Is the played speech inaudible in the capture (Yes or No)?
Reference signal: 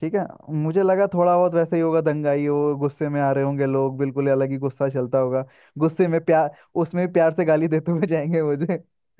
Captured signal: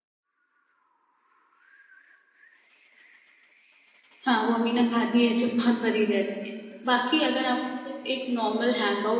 Yes